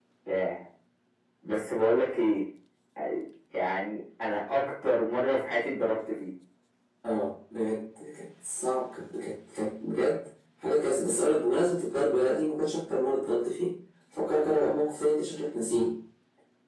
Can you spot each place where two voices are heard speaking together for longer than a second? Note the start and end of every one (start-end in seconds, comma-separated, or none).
none